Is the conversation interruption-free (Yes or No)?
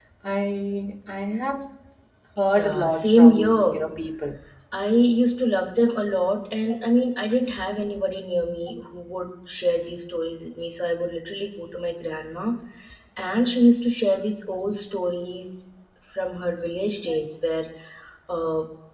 No